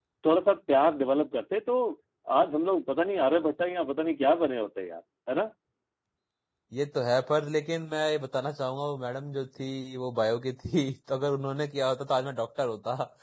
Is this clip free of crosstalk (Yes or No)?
Yes